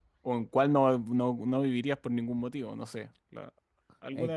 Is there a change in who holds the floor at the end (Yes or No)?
Yes